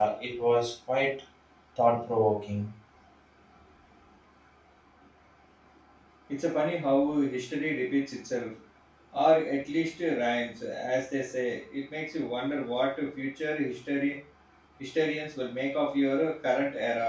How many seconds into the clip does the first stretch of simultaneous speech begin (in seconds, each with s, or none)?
none